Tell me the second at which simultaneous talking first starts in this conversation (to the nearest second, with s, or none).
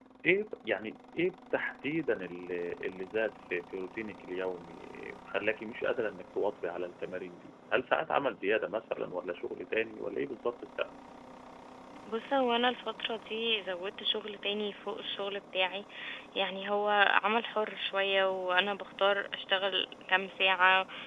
none